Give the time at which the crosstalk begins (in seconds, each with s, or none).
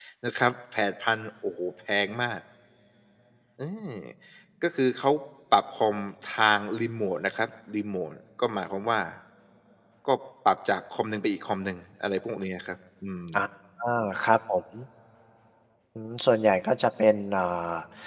none